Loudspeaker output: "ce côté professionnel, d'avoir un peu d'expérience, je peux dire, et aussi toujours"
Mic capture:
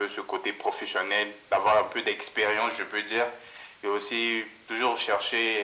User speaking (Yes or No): No